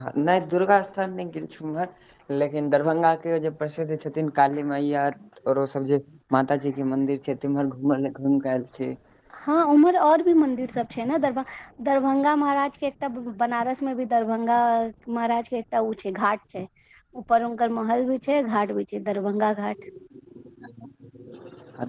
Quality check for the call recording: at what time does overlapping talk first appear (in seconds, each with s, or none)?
none